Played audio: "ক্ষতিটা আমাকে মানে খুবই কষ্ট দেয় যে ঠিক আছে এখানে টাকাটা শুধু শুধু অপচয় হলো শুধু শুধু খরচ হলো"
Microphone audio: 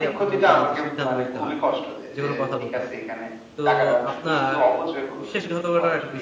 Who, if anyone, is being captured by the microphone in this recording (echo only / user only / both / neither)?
both